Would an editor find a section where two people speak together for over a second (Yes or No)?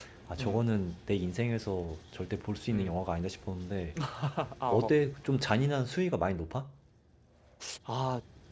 No